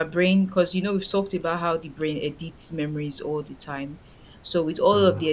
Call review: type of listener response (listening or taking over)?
listening